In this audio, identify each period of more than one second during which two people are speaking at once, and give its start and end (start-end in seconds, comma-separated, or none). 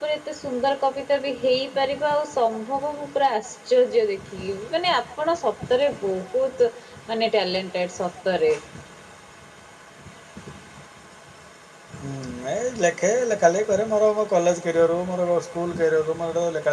none